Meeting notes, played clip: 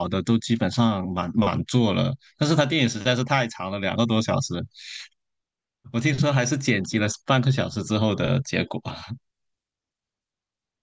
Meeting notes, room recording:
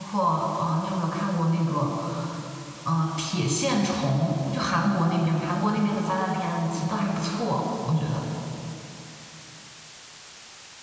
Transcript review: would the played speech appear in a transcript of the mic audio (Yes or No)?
No